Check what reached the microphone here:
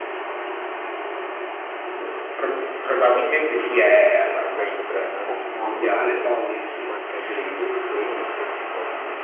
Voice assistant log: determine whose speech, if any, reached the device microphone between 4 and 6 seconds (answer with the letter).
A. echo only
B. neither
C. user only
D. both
D